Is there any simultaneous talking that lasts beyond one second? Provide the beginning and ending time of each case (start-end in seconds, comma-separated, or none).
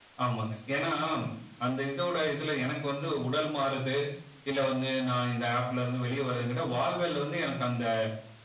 none